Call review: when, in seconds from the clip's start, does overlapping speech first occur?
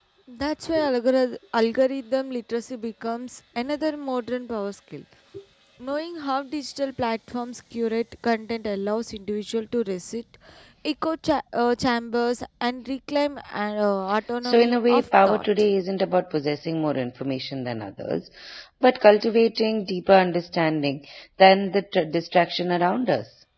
14.4 s

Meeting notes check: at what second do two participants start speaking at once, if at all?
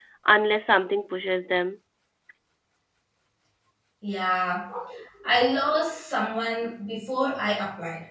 none

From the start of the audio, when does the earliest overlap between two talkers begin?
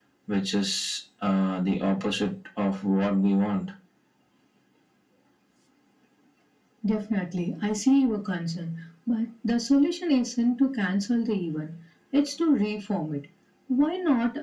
none

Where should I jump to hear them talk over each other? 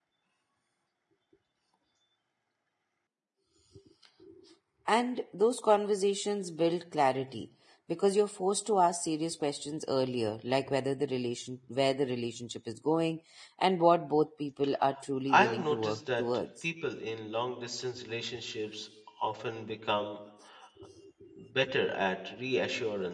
15.3 s

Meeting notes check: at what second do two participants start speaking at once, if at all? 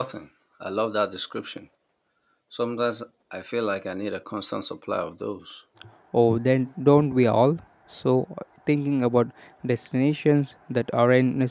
none

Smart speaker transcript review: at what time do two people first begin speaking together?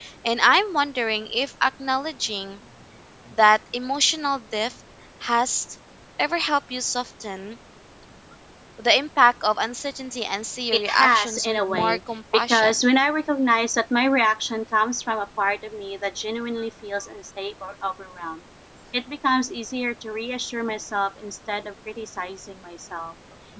10.7 s

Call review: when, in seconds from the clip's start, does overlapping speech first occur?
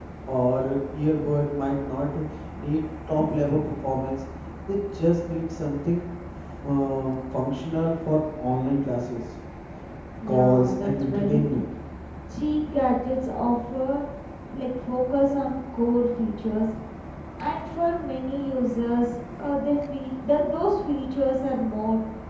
10.3 s

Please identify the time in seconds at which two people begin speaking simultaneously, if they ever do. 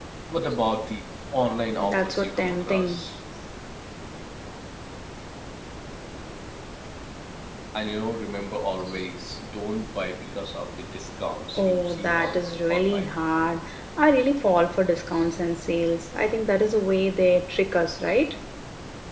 1.8 s

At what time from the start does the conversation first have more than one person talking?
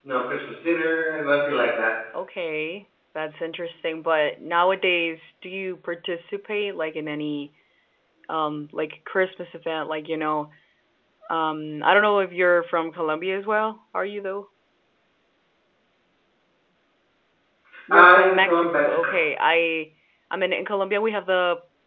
17.9 s

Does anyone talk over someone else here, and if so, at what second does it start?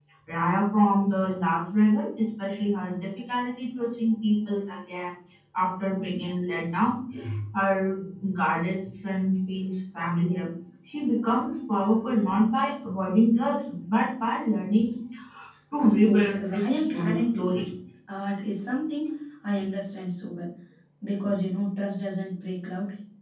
15.8 s

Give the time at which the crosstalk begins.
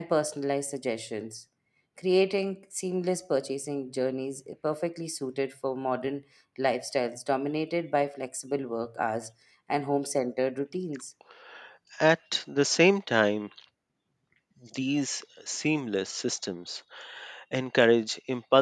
none

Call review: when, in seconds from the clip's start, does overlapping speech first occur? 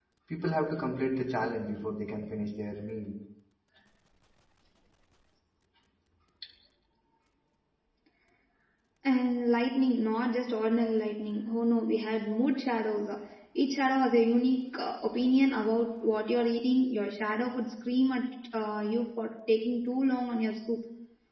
none

